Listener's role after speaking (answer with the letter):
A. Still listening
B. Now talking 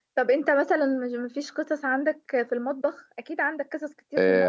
B